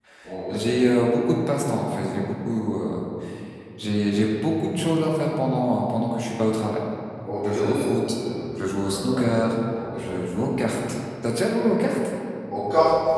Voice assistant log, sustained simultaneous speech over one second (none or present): none